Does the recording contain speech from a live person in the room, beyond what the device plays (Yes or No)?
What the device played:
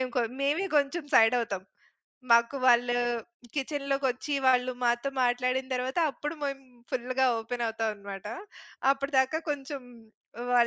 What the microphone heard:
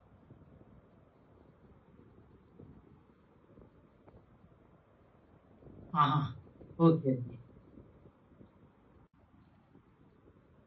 Yes